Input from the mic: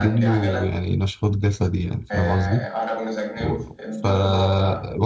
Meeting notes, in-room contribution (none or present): present